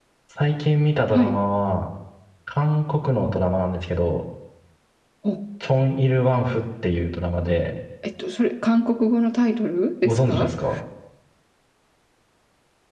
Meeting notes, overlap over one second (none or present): none